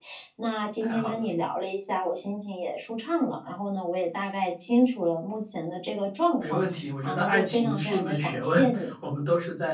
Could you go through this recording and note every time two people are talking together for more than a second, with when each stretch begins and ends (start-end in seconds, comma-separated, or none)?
6.4-8.6